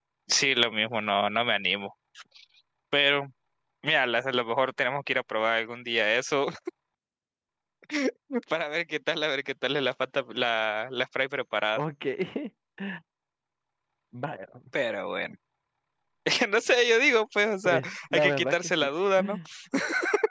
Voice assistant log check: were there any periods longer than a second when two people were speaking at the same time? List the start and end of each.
17.6-18.9

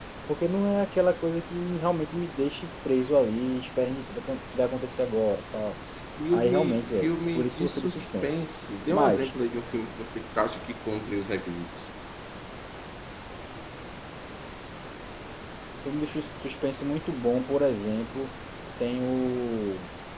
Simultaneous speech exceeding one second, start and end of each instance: 6.3-8.4

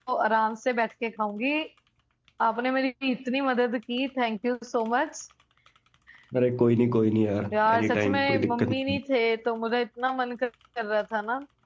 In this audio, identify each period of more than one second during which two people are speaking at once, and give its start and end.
7.7-9.0

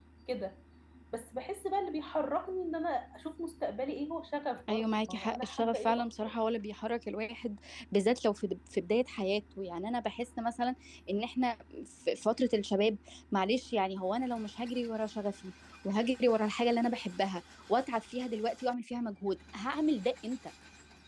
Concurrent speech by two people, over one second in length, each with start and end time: 4.7-6.4

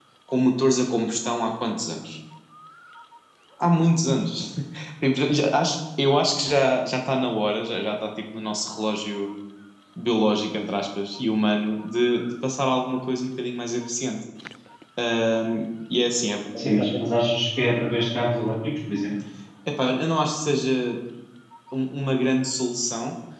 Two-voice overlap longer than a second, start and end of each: none

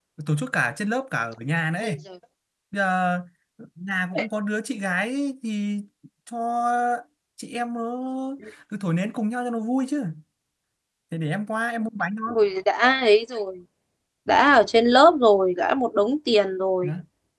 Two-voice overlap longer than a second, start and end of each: none

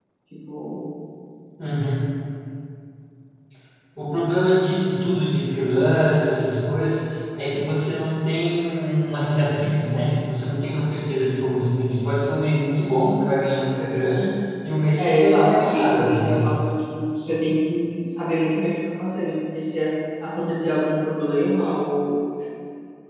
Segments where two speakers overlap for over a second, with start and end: 15.0-16.5

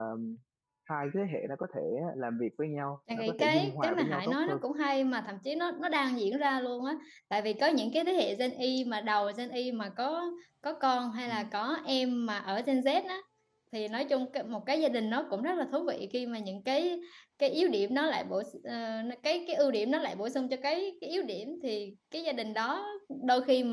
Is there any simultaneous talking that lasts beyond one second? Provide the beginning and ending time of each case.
3.1-4.6

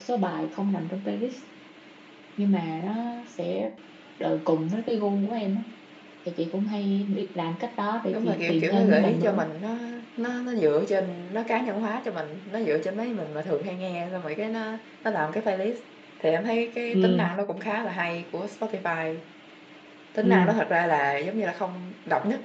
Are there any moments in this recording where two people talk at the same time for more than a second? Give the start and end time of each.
8.1-9.4

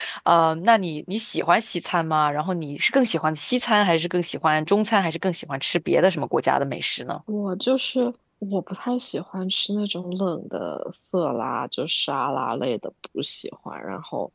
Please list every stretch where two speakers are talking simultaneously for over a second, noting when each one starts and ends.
none

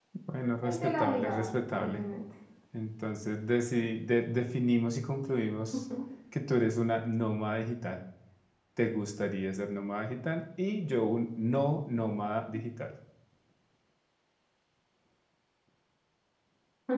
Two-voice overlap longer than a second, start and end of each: 0.6-2.0

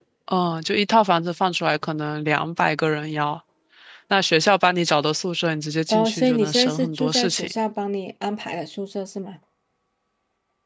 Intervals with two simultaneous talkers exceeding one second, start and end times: 5.9-7.5

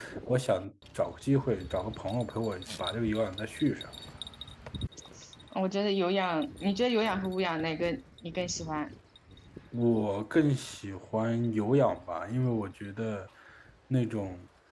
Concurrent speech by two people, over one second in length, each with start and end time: none

